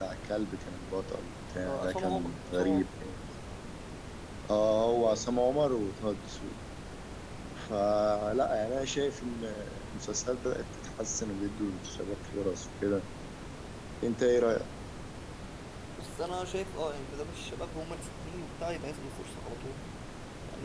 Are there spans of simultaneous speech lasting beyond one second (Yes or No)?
Yes